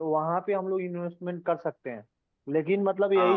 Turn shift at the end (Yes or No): No